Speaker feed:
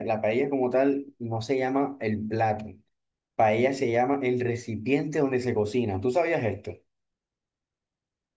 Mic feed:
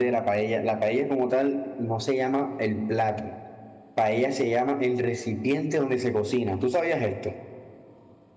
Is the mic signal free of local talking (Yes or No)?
Yes